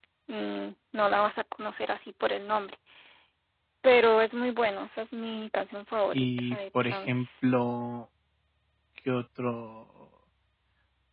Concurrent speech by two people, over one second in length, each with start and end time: 6.1-7.5

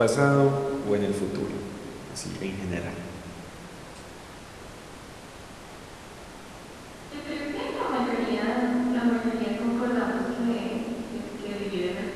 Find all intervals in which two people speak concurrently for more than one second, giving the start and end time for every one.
none

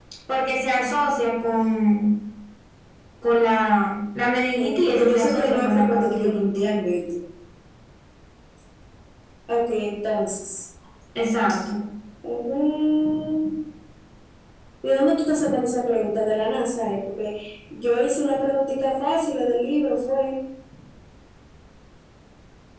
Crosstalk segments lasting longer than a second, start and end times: 4.3-6.7

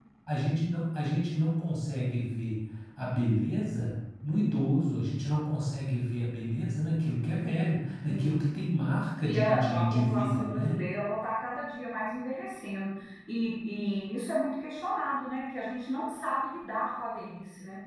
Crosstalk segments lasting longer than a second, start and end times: 9.2-10.8

